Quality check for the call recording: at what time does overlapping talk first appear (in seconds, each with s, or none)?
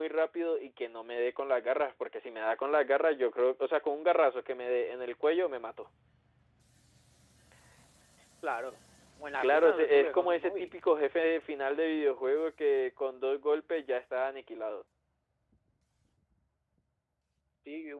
9.4 s